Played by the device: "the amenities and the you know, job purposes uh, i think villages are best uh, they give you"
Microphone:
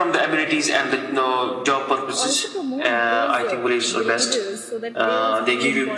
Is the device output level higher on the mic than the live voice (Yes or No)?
Yes